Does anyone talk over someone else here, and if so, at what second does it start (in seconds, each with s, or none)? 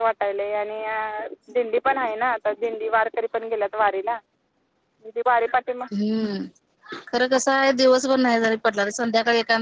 none